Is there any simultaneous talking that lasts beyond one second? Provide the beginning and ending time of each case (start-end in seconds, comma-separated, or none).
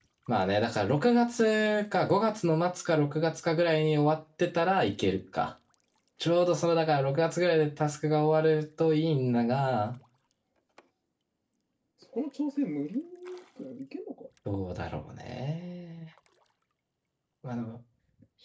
none